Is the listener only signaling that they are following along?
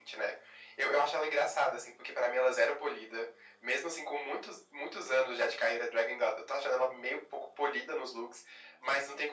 Yes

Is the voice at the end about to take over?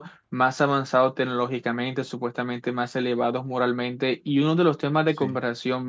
No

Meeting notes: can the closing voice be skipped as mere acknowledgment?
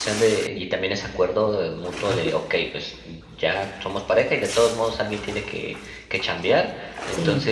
Yes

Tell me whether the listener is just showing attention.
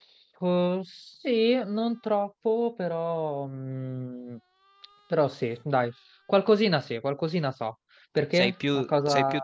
No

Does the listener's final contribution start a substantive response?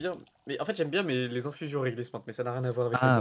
Yes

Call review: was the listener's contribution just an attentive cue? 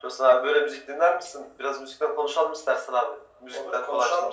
No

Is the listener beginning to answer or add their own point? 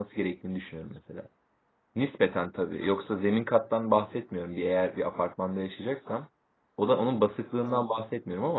No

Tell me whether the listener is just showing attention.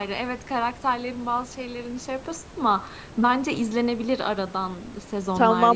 No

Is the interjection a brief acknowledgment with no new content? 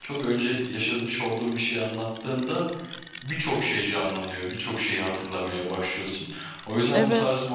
Yes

